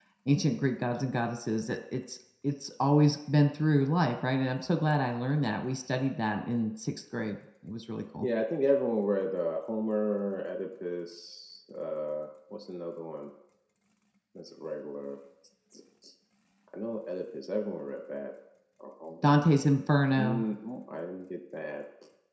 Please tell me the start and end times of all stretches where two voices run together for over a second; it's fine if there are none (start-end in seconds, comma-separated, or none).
none